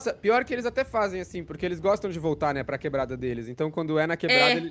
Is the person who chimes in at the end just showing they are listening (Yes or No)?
Yes